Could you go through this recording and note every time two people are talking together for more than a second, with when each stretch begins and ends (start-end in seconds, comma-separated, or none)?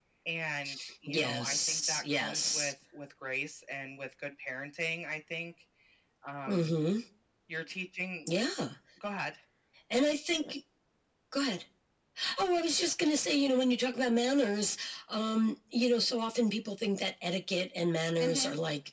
1.1-2.7